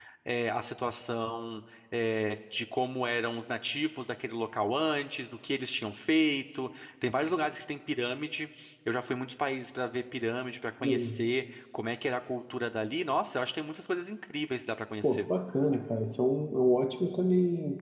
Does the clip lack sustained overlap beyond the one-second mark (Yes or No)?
Yes